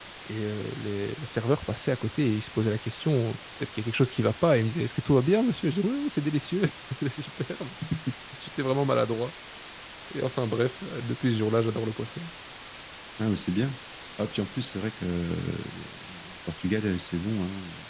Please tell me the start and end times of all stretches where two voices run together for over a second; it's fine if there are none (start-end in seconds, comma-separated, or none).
none